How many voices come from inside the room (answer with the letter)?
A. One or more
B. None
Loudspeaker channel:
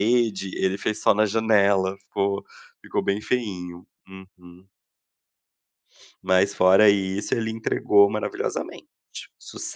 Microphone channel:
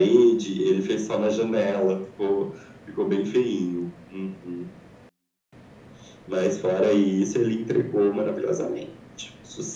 B